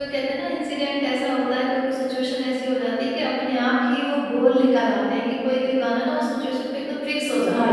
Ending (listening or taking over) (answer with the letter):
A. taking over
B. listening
A